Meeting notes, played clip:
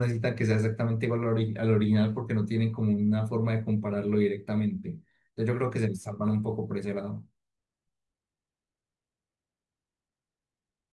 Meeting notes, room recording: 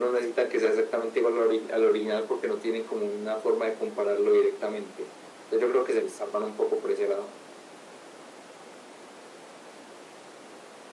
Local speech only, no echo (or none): none